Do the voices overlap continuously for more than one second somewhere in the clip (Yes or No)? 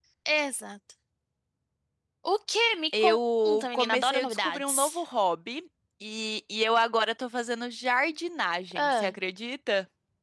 Yes